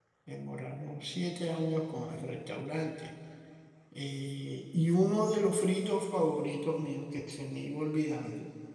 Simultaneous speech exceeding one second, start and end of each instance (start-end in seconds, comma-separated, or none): none